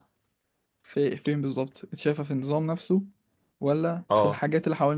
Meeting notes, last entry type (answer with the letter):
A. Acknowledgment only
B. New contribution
A